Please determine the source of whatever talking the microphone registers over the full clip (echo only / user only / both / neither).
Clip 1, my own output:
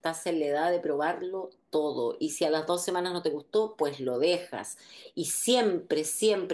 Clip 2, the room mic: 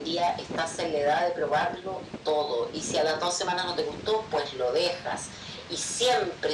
echo only